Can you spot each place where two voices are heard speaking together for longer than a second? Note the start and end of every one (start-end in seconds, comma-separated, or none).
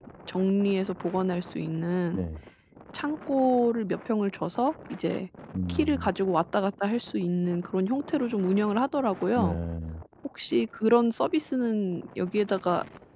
none